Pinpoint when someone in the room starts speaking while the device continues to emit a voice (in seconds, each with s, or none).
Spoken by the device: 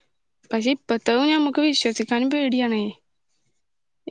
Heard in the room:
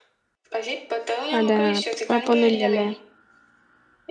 1.4 s